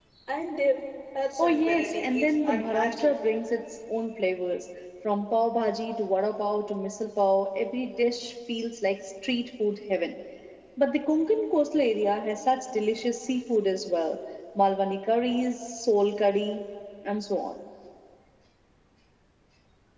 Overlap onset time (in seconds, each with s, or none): 1.4 s